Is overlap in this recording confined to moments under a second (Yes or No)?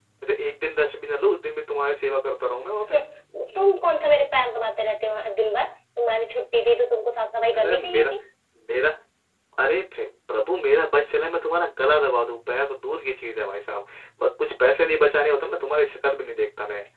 Yes